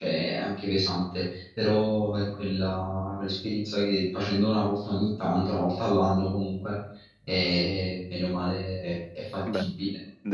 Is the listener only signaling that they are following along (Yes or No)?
No